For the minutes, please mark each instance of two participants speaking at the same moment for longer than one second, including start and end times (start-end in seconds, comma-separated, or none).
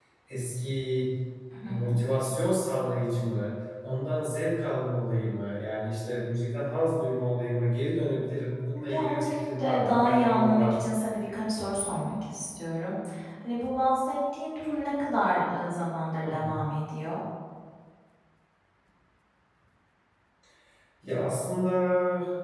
8.9-10.9